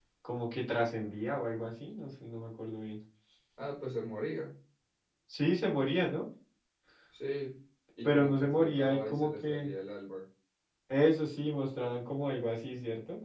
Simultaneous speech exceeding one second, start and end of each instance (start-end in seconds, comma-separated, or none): 8.0-9.7